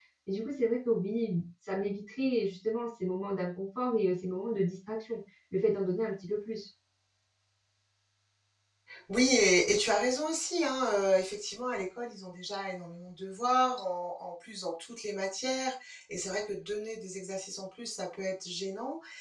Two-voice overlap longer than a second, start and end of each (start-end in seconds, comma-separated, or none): none